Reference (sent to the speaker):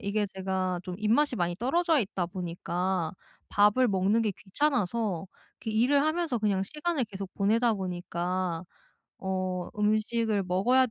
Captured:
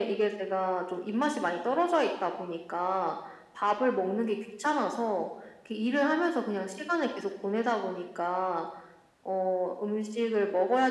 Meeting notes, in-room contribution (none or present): none